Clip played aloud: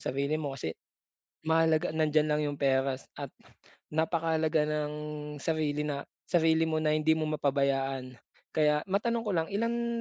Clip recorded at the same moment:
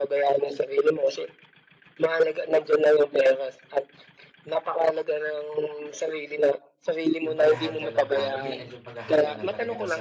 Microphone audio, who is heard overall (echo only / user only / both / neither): both